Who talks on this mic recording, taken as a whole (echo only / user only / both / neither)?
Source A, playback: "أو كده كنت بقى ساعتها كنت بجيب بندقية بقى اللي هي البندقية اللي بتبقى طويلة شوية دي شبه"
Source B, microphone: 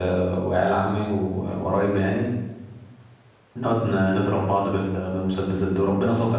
user only